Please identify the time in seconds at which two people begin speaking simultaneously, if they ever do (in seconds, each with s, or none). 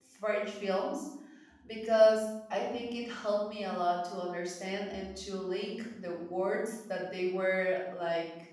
none